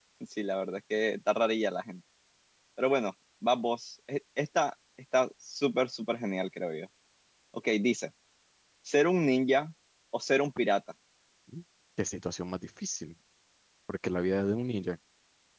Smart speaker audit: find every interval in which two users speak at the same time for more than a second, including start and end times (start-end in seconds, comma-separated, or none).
none